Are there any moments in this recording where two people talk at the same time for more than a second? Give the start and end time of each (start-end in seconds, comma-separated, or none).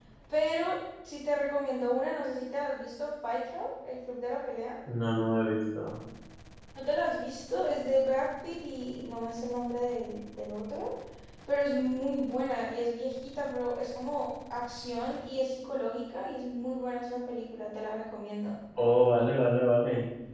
none